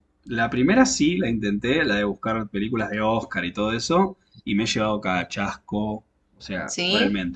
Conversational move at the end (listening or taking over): listening